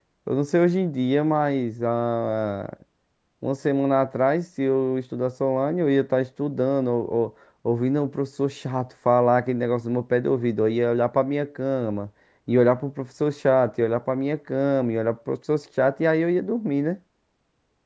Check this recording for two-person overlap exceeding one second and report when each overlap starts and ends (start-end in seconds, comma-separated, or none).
none